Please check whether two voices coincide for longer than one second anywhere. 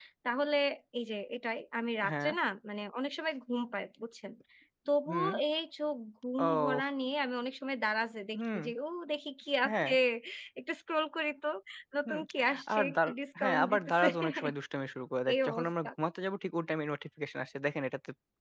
Yes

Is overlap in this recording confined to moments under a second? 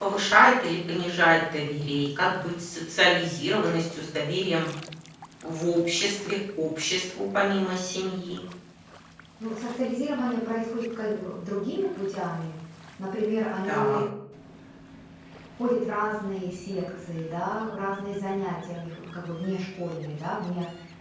Yes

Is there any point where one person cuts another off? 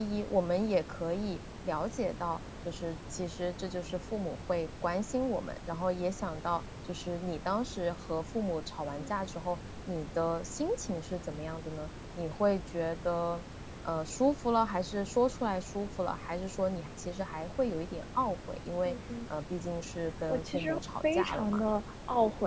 Yes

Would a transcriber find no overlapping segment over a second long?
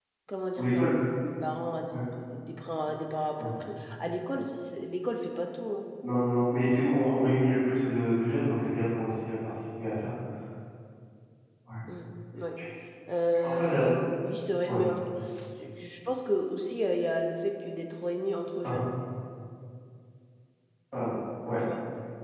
Yes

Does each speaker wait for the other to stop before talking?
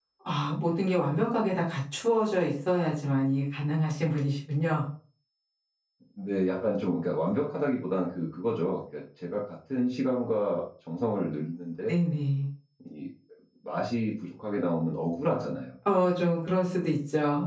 Yes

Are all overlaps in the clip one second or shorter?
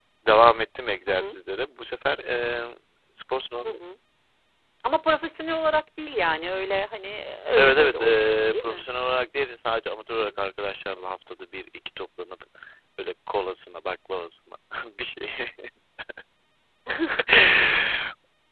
No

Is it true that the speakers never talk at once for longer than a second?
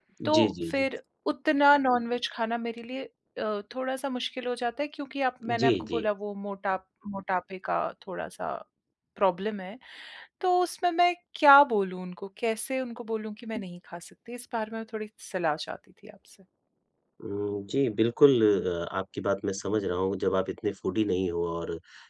Yes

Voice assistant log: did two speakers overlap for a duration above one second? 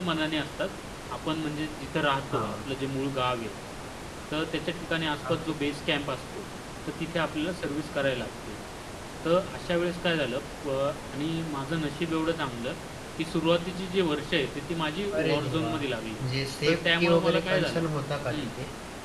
Yes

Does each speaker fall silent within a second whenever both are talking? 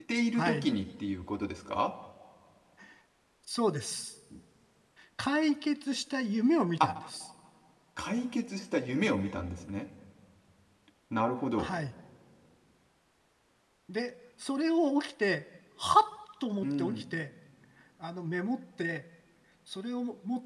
Yes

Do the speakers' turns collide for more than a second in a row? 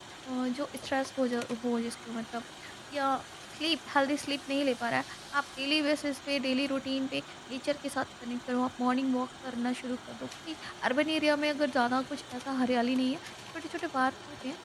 No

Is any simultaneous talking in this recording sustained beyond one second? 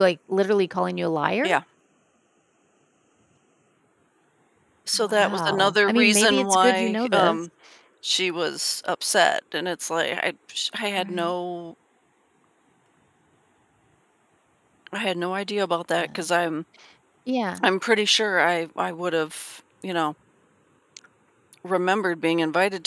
Yes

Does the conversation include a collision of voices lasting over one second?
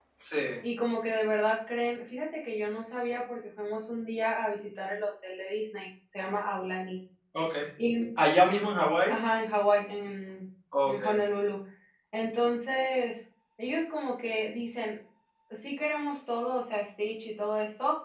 No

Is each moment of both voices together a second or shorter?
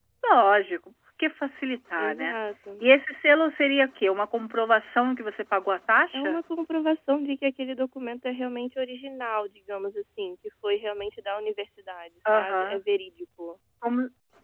Yes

